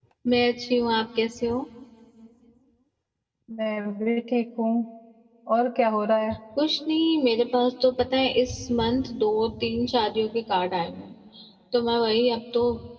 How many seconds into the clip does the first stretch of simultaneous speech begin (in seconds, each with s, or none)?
none